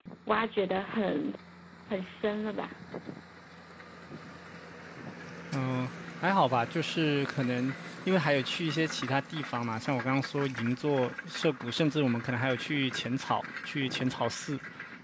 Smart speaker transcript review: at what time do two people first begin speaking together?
none

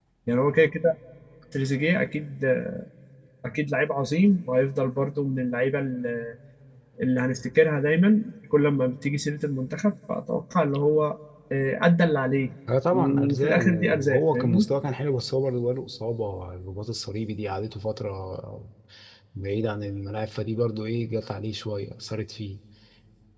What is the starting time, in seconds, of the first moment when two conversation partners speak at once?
12.9 s

